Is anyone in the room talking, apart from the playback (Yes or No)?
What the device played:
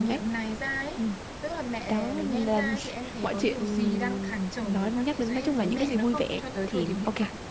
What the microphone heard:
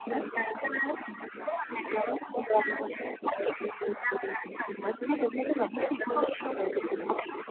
No